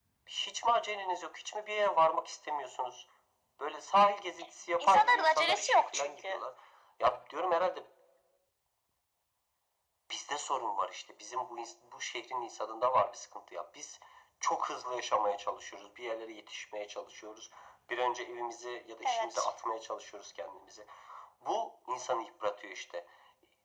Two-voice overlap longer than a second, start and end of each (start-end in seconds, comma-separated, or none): 4.8-6.4